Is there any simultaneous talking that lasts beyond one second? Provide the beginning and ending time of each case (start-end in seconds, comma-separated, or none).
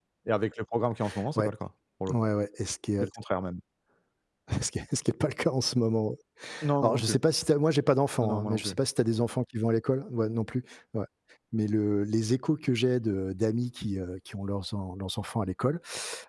none